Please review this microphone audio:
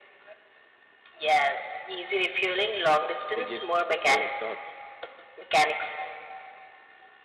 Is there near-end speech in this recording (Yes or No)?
Yes